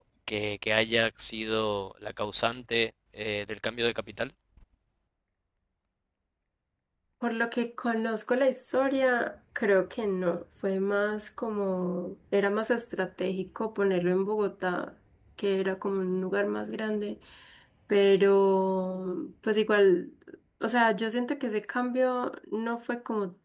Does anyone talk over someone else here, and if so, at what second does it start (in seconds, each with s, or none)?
none